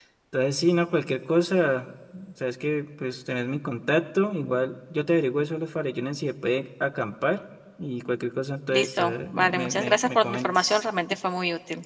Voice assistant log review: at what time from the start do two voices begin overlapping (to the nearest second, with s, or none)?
9 s